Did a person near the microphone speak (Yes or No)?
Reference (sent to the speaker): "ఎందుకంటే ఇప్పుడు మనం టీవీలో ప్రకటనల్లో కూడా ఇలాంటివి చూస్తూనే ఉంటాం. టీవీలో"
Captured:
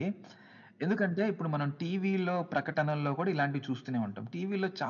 No